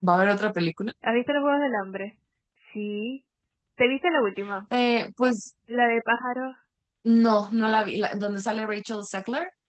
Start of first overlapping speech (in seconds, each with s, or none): none